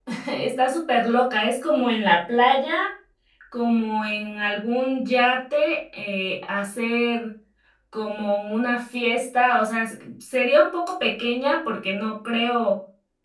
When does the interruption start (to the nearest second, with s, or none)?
none